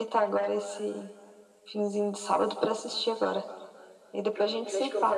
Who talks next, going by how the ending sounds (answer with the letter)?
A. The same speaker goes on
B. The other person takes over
B